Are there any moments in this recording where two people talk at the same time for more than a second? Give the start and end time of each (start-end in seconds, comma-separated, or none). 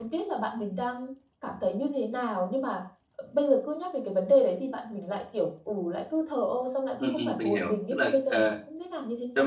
7.0-8.5